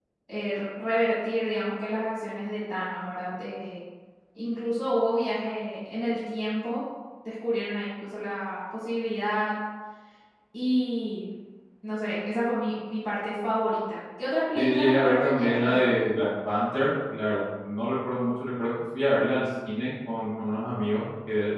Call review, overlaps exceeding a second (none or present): present